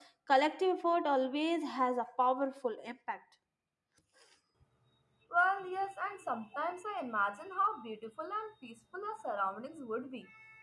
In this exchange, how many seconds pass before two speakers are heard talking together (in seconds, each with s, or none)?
none